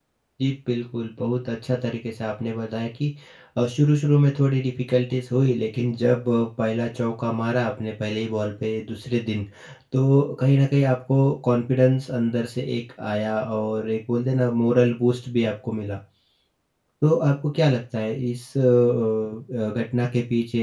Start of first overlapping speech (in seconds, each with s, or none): none